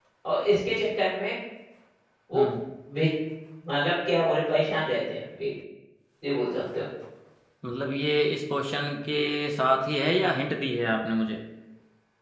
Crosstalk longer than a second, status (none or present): none